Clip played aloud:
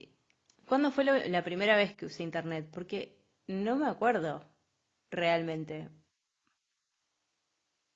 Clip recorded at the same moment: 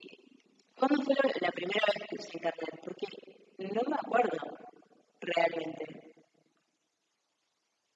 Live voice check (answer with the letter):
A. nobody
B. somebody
A